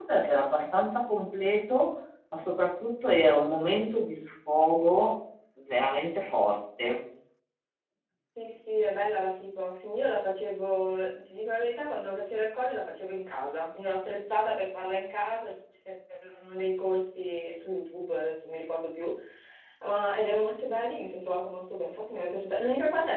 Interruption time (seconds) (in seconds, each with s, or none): none